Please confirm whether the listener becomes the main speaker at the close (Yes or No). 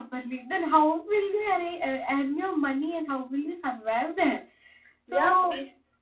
Yes